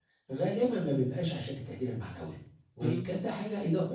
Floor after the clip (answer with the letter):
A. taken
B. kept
B